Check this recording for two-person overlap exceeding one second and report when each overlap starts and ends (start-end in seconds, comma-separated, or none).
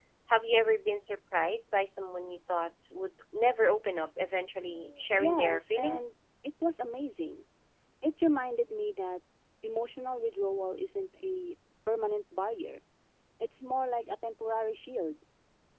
4.7-6.1